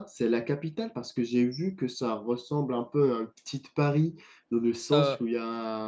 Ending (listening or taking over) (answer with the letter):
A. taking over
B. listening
B